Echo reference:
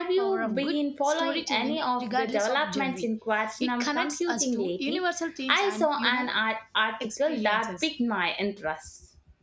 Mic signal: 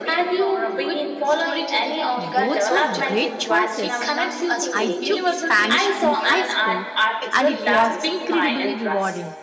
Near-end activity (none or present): present